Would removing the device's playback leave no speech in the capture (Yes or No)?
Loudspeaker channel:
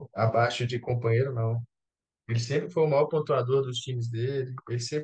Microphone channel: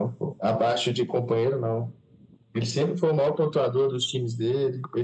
Yes